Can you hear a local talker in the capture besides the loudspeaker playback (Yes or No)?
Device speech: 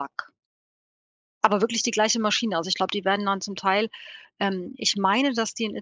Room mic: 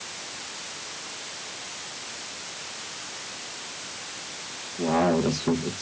Yes